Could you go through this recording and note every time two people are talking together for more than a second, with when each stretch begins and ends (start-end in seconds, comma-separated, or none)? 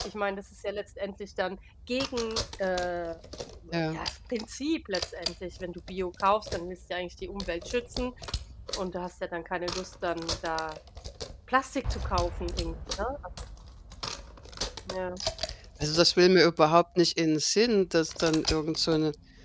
none